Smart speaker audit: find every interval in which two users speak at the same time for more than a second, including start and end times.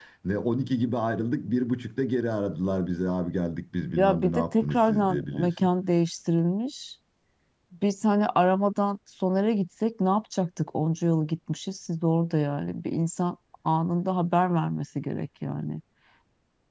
4.0-5.7

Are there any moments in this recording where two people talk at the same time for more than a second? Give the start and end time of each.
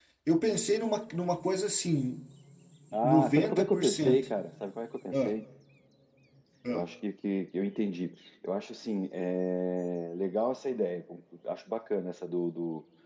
3.0-4.3

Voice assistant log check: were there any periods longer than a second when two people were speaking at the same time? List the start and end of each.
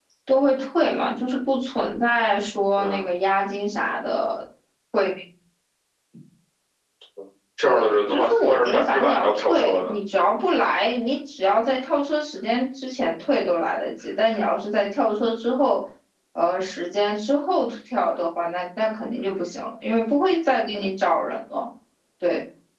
7.6-9.9

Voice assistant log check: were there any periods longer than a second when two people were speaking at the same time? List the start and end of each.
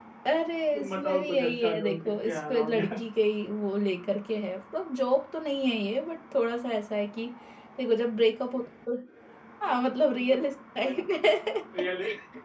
0.7-2.8

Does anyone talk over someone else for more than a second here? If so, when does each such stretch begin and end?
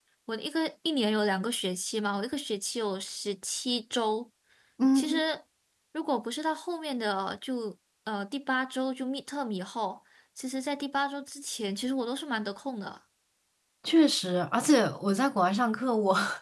none

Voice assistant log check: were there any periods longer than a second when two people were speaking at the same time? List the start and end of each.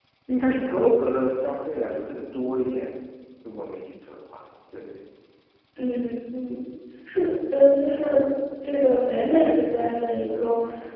none

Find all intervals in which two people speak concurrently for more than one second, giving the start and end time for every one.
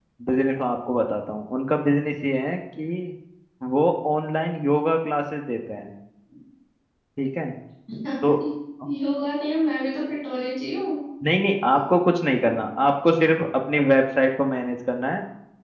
none

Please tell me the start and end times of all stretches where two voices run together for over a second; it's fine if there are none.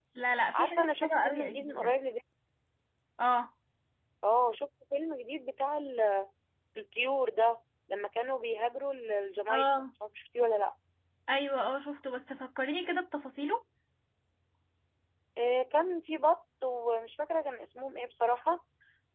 0.5-1.9

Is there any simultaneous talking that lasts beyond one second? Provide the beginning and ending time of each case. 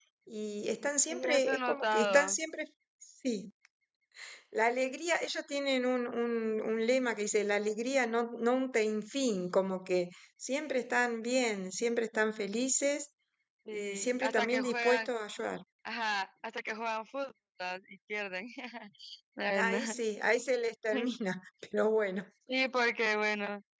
1.1-2.4, 13.7-15.1

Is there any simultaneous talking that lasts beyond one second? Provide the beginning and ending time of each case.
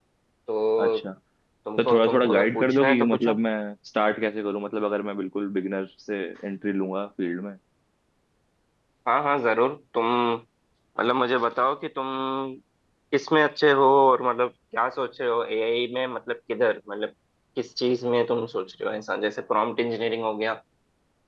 1.8-3.4

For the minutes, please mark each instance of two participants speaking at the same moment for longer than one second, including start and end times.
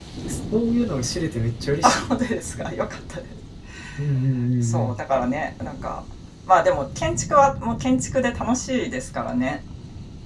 none

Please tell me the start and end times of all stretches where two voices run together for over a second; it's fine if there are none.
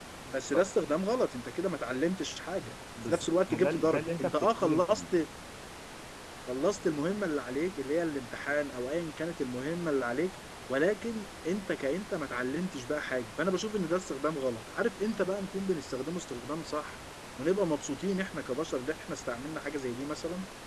3.1-5.0

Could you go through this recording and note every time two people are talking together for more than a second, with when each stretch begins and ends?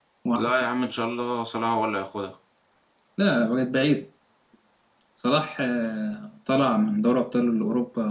none

